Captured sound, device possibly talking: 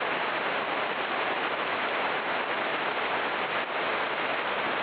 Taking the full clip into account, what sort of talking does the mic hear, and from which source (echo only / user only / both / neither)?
neither